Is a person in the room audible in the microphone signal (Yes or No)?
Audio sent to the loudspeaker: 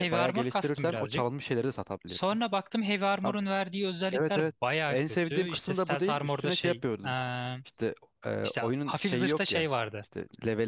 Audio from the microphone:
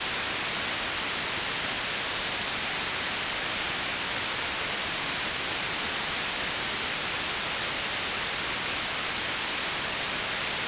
No